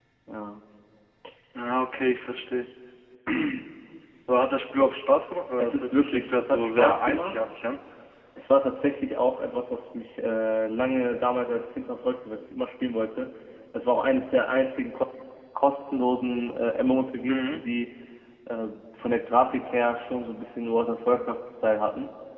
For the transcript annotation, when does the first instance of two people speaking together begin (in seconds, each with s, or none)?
5.6 s